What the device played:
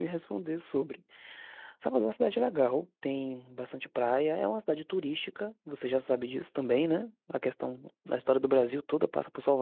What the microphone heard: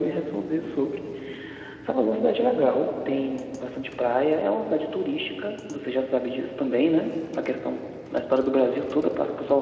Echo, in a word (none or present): present